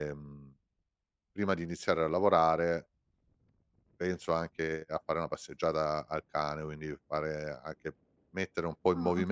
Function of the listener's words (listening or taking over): taking over